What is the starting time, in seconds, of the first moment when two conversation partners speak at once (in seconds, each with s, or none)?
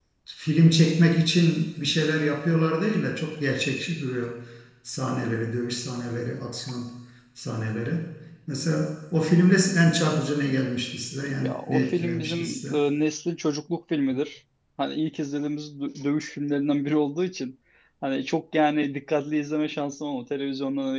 11.2 s